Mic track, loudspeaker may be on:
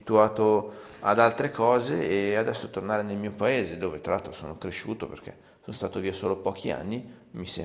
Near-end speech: present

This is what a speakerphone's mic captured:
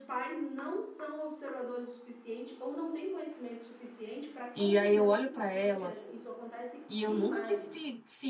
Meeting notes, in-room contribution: present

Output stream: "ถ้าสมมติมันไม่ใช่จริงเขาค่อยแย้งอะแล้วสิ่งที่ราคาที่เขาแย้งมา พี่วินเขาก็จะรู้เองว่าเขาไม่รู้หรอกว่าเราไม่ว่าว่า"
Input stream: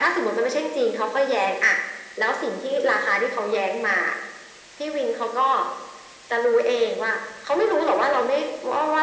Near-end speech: none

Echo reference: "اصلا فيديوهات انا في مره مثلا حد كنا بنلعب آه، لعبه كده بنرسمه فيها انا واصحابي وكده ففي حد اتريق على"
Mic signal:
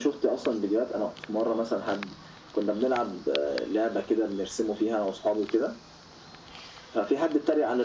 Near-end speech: none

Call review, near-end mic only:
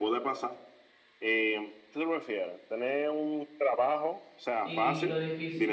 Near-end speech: present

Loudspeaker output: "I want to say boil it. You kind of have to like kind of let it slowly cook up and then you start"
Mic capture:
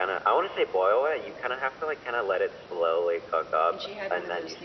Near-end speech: present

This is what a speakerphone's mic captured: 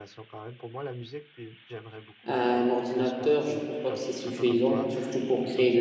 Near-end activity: present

